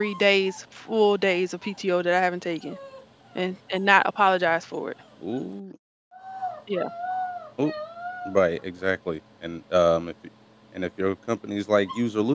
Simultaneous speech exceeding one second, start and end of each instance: none

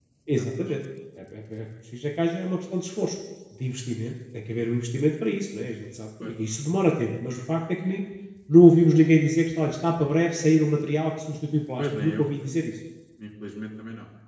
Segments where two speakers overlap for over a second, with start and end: none

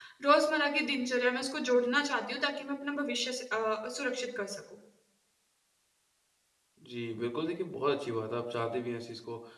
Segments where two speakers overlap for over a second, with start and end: none

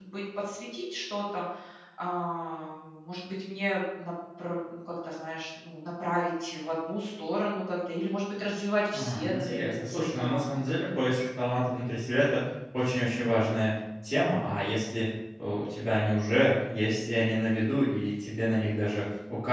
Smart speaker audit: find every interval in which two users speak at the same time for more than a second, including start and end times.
8.9-11.2

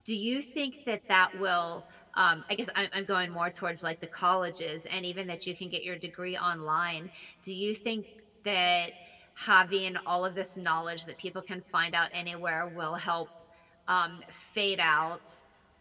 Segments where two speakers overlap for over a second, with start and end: none

